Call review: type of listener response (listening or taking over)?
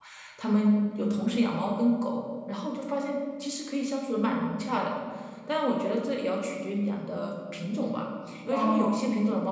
listening